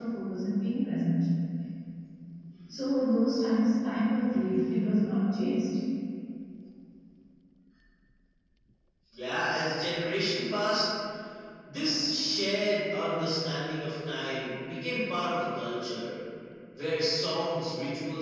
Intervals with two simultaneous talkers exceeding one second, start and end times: none

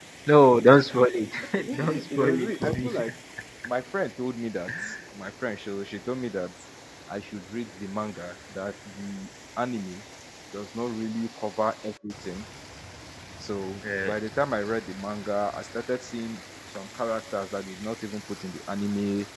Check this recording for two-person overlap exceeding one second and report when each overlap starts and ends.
1.7-2.9

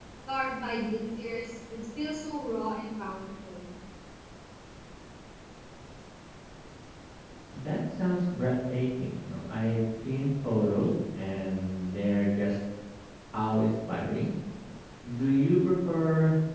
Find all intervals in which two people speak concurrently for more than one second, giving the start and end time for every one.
none

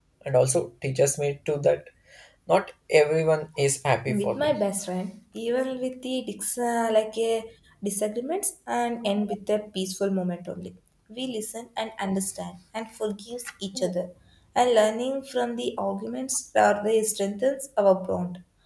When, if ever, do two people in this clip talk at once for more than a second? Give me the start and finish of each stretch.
none

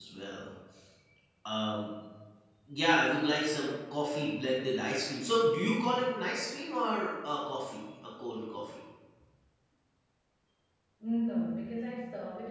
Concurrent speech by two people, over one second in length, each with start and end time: none

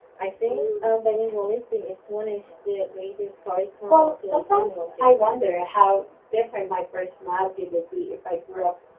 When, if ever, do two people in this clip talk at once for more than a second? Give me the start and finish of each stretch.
3.9-5.4

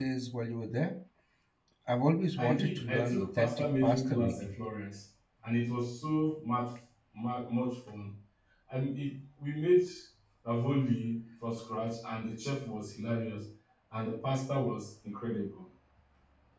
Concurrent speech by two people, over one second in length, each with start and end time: 2.4-4.3

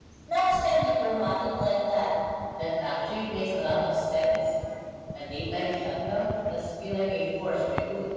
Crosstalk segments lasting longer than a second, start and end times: none

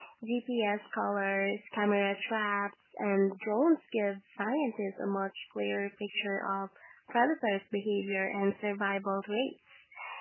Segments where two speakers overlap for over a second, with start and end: none

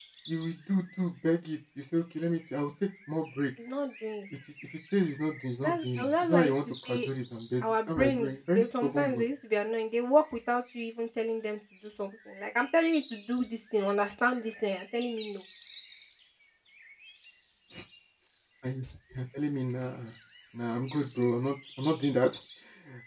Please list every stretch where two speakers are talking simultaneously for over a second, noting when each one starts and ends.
5.6-7.1, 7.6-9.3

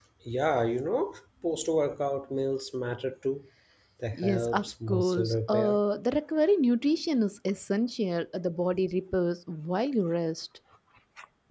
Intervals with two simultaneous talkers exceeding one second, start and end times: 4.1-5.8

